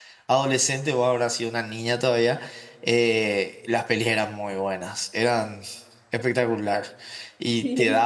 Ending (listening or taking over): listening